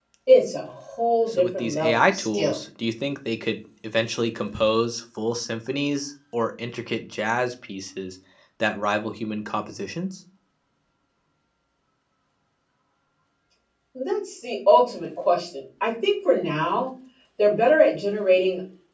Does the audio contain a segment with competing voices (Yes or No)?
Yes